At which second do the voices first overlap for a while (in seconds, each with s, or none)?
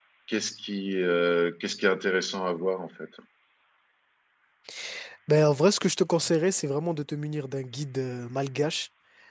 none